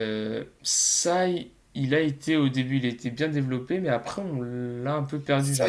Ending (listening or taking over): taking over